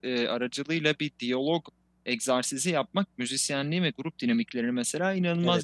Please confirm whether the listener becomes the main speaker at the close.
No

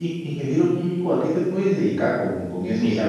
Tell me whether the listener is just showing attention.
No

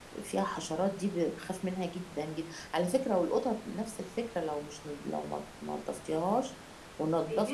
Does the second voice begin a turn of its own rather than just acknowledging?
Yes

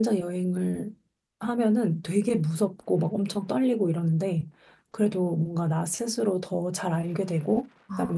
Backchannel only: Yes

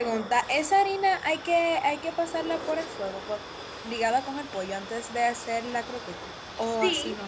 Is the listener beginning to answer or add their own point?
Yes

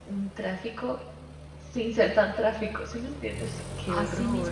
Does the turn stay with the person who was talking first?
No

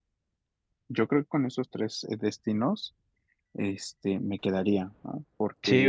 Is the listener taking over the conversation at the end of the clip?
Yes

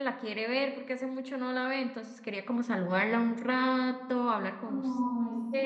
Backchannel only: No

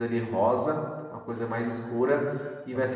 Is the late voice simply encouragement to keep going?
Yes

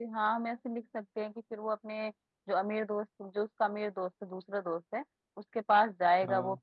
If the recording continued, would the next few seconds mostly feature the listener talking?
No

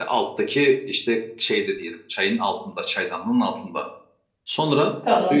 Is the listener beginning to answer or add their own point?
No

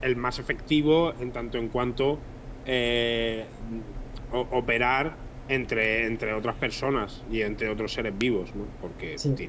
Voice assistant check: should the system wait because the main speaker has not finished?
Yes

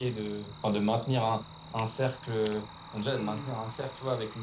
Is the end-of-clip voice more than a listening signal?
No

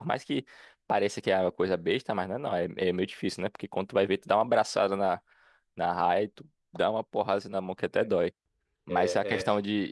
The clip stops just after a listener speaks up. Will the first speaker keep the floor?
Yes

